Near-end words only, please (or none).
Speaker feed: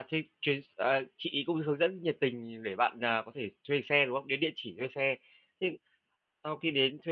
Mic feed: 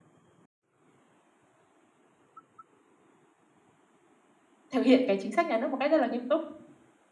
thực hiện cái chính sách nhà nước một cách rất là nghiêm túc.